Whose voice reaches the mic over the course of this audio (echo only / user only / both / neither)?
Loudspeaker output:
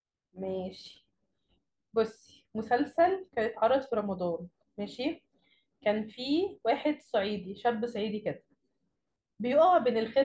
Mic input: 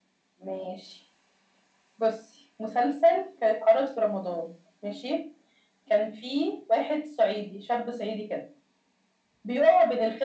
echo only